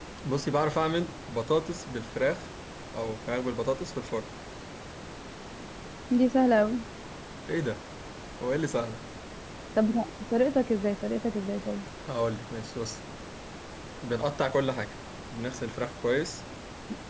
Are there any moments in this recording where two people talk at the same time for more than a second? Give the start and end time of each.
none

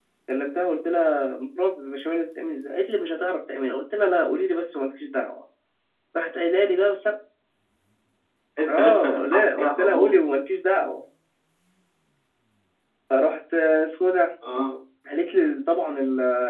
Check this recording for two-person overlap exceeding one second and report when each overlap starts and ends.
8.7-10.3

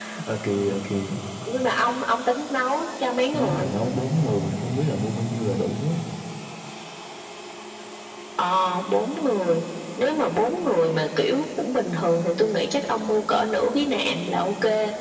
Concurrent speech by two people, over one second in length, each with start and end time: none

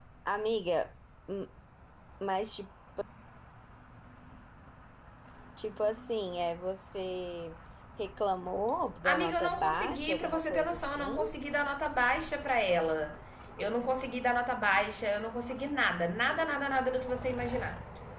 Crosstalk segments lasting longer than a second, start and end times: 9.0-11.2

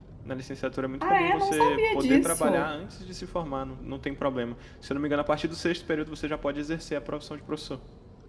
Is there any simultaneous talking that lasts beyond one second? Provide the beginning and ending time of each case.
1.0-2.7

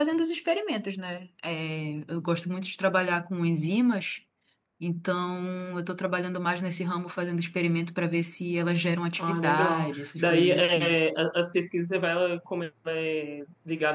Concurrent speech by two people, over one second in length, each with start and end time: 9.2-11.0

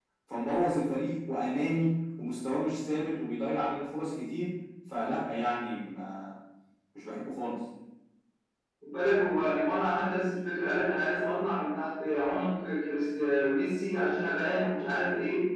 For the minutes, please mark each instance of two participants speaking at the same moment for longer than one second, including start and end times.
none

